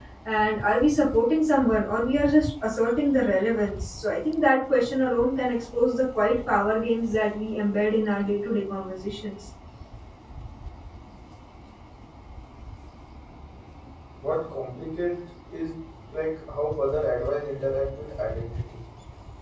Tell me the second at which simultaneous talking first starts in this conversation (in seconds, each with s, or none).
none